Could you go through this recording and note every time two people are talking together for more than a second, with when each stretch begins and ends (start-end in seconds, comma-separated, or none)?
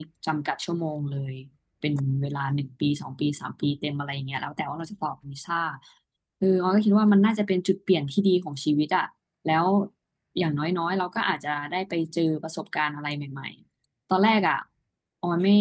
none